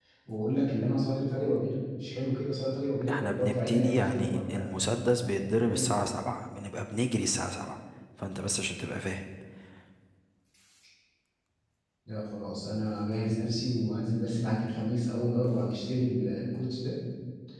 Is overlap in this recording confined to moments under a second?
No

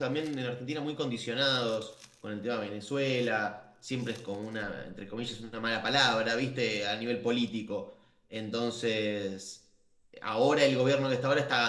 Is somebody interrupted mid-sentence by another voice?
No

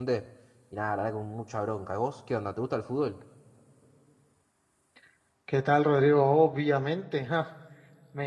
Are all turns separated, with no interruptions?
Yes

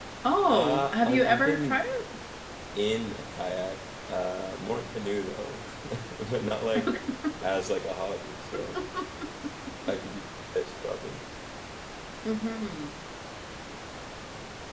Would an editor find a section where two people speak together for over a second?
Yes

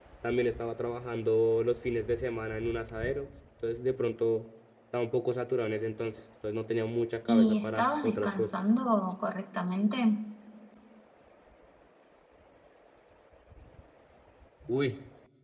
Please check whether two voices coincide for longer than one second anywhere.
Yes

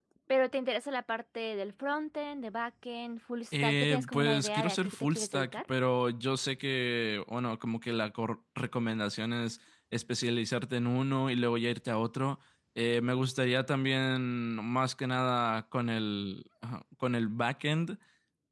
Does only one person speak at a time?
No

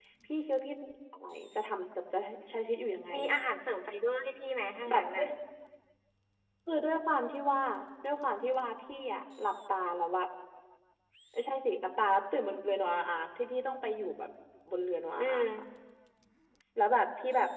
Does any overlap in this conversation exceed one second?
No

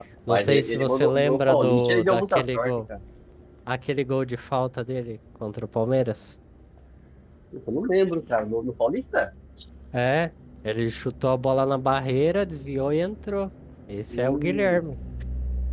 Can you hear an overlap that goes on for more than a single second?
Yes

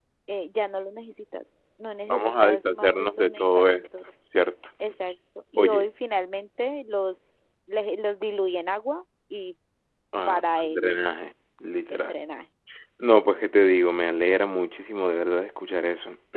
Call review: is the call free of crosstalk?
No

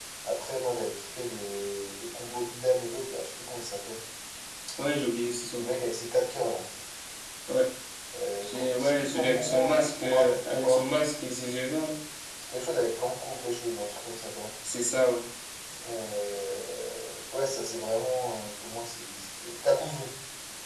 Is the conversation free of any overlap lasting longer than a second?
No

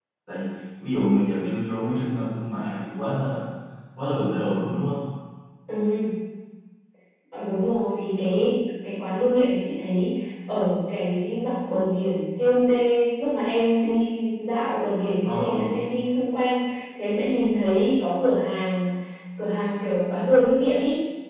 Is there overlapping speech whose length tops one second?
No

